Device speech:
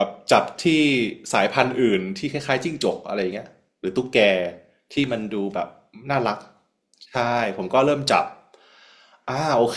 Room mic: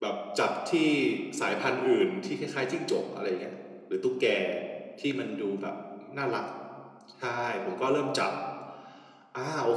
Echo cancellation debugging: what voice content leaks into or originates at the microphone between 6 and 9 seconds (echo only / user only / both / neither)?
echo only